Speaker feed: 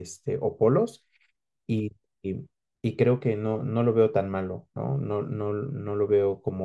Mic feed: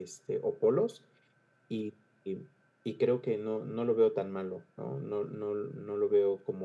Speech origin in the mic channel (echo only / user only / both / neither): echo only